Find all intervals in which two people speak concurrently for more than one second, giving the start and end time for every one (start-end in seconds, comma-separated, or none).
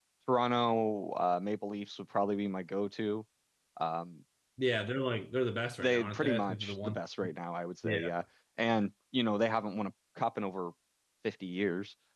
5.8-7.0